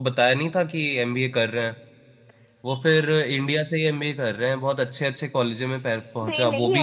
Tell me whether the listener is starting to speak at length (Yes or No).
Yes